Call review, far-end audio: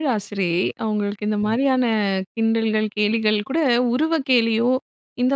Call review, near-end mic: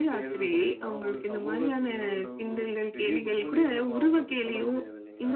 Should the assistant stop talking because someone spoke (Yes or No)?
Yes